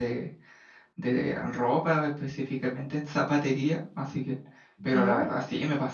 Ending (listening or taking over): listening